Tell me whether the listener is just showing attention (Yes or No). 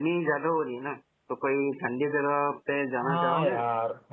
No